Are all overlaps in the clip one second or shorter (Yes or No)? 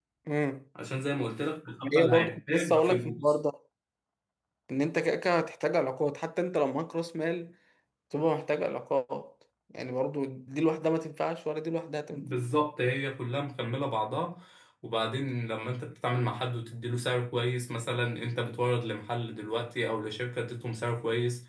No